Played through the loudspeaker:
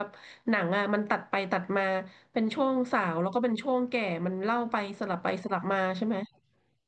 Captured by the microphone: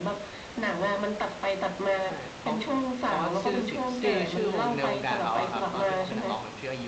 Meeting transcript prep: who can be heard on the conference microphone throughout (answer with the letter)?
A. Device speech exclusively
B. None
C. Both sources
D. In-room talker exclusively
C